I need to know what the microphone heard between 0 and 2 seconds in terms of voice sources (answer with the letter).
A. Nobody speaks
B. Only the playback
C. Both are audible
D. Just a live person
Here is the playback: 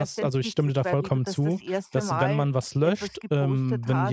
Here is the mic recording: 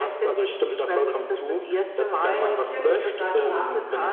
B